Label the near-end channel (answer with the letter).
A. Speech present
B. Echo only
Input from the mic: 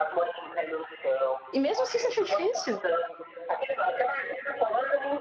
A